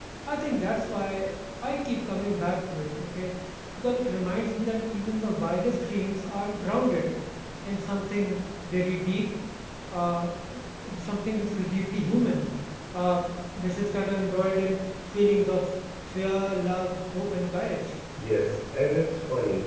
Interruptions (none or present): none